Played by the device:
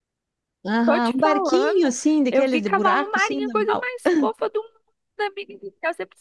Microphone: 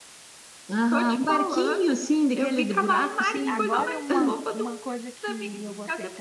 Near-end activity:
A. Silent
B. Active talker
B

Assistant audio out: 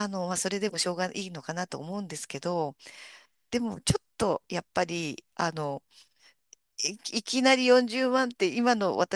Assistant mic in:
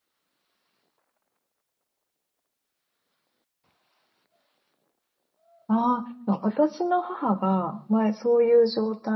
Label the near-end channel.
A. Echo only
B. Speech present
B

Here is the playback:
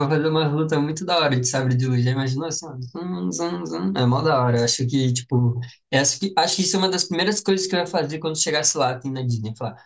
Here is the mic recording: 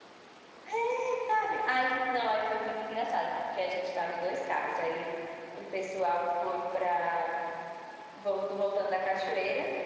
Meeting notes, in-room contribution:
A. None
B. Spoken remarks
B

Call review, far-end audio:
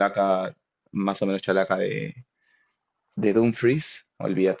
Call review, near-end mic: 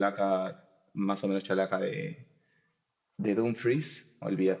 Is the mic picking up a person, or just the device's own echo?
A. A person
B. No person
B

